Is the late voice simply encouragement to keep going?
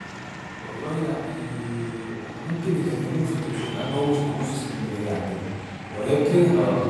Yes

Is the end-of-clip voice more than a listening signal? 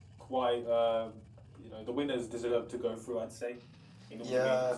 Yes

